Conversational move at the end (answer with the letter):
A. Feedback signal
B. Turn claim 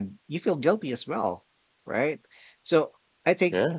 A